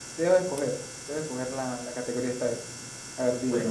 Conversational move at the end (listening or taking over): taking over